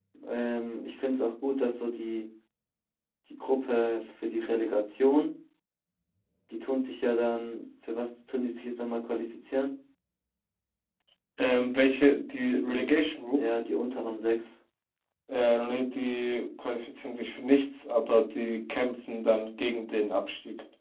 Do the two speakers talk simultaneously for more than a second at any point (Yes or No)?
No